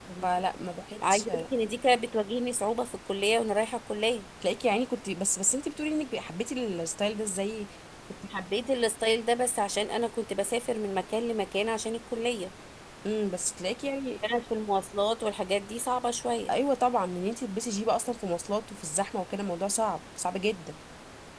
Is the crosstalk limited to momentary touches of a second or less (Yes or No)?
Yes